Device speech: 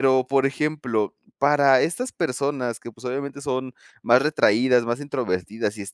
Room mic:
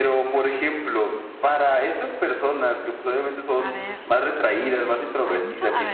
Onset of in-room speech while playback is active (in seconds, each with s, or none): 3.5 s